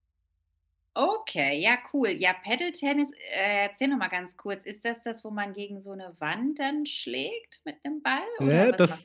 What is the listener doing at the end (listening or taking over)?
taking over